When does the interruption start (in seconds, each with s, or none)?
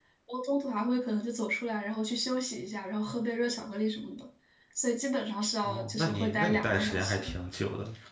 5.6 s